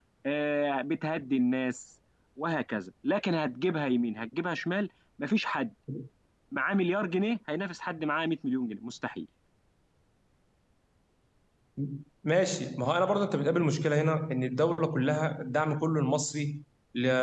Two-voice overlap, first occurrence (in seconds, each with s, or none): none